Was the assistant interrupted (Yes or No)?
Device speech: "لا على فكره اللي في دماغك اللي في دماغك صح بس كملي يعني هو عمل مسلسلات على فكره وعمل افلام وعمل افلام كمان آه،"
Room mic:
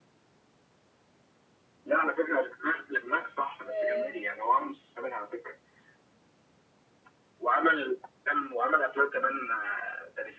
Yes